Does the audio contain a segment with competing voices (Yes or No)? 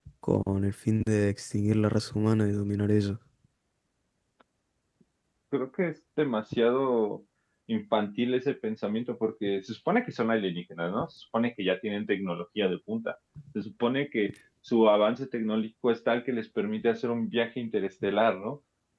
No